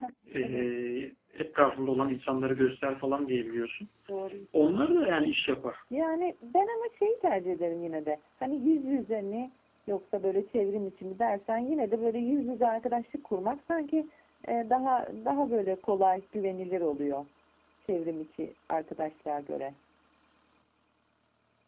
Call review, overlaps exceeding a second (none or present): none